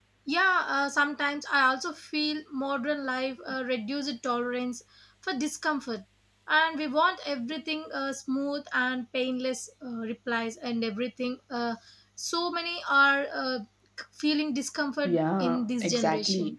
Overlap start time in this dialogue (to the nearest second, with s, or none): 15 s